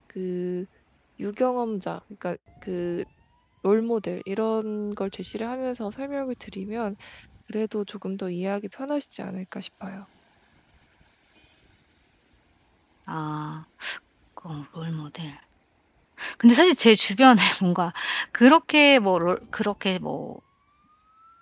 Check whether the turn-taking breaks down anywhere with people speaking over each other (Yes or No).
No